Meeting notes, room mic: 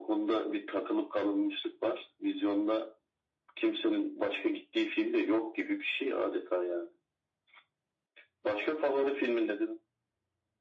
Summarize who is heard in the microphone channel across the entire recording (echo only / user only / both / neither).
echo only